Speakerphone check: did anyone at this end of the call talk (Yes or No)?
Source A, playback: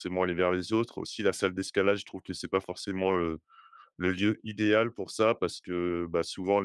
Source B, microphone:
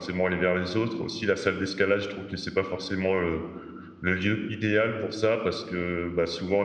No